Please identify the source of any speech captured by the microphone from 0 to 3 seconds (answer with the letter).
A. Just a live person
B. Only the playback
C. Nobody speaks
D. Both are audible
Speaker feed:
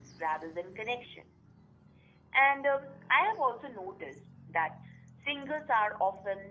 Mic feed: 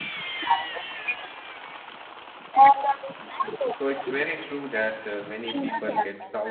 B